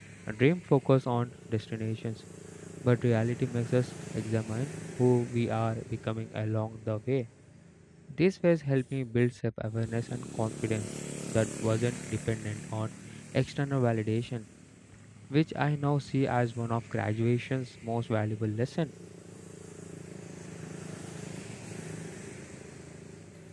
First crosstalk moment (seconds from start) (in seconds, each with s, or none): none